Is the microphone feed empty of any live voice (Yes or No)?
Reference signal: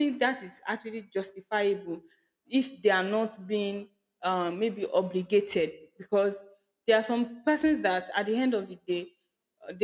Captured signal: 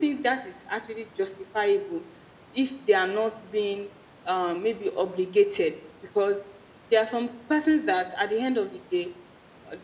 Yes